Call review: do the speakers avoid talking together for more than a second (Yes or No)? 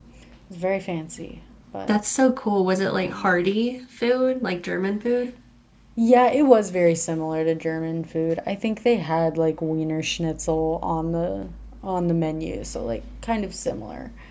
Yes